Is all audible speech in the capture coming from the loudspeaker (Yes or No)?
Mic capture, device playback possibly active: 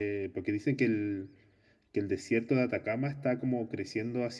No